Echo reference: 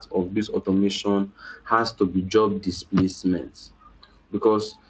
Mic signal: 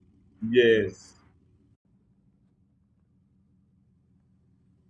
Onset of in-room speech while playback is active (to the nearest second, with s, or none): 0 s